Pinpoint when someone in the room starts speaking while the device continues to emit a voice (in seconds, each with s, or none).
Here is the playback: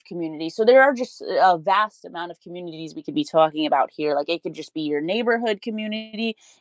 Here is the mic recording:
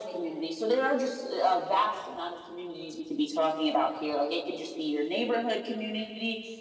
none